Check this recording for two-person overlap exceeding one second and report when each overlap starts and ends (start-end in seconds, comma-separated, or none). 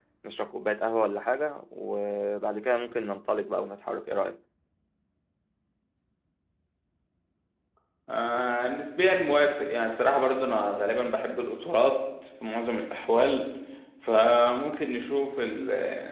none